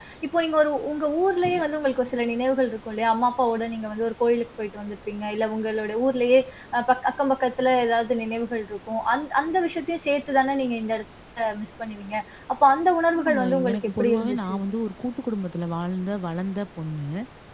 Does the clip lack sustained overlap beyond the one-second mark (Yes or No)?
No